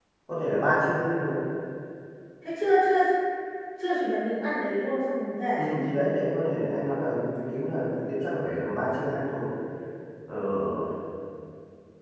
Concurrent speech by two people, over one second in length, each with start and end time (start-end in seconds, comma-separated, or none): none